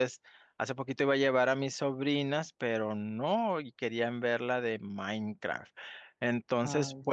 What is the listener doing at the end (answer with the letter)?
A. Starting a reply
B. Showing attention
B